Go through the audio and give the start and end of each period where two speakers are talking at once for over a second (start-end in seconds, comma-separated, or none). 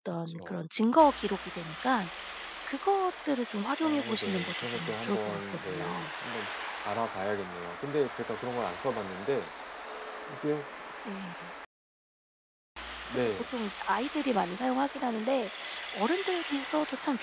3.8-6.0